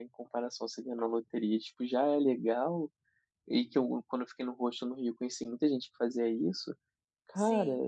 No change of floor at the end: Yes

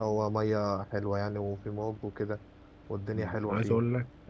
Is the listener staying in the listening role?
No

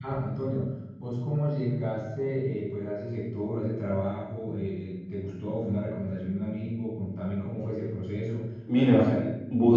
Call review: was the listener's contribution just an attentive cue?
No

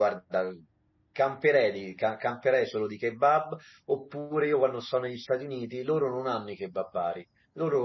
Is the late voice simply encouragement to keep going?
Yes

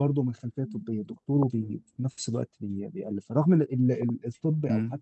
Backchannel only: Yes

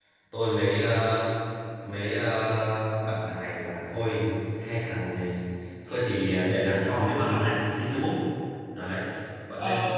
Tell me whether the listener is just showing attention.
Yes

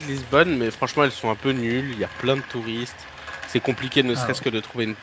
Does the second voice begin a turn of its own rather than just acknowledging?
No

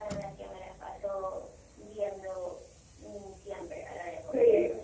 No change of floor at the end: Yes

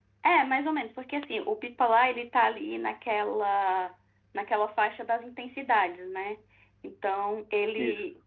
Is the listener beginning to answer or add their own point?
No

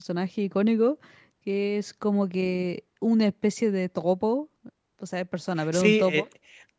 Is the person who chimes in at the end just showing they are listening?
No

